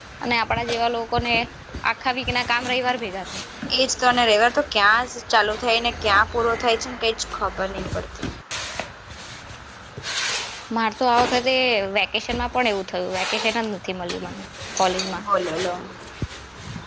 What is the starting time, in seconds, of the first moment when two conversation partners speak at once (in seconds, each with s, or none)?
none